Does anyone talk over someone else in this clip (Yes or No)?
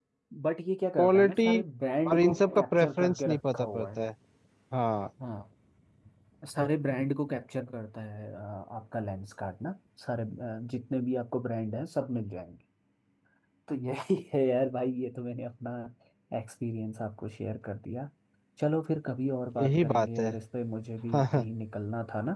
Yes